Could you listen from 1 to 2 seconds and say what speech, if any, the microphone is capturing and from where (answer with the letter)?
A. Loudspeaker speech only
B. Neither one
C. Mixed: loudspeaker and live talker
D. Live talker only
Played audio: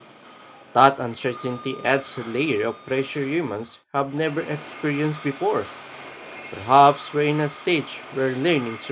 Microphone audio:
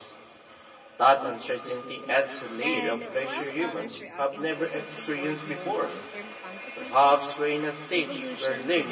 A